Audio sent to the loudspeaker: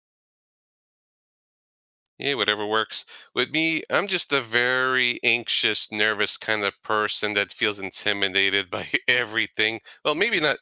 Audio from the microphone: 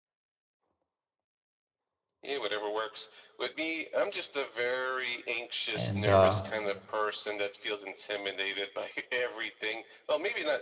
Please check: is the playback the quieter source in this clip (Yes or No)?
Yes